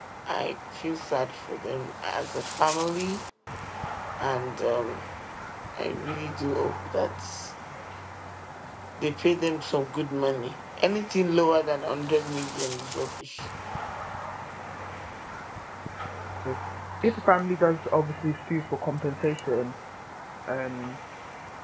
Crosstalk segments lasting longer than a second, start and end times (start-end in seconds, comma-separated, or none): none